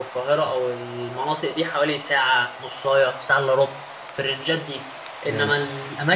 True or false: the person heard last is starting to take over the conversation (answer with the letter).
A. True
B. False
B